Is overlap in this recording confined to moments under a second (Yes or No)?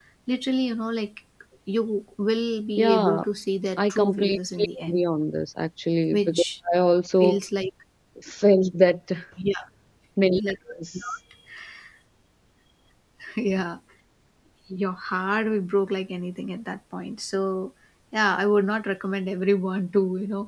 No